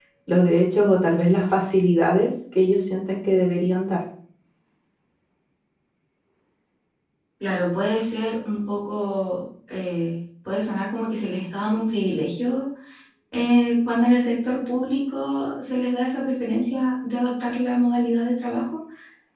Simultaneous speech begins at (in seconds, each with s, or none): none